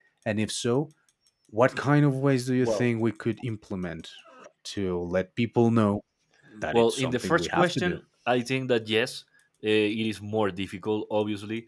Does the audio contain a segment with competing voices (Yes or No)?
Yes